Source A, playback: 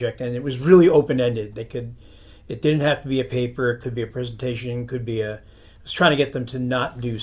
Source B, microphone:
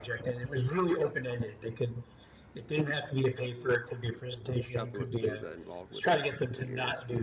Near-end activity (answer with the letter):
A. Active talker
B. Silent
A